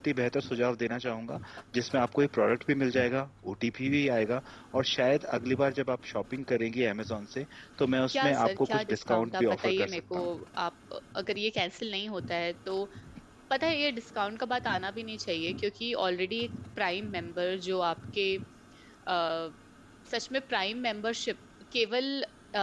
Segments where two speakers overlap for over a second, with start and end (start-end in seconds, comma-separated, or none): 8.1-10.2